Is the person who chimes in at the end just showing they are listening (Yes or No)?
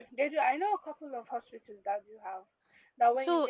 Yes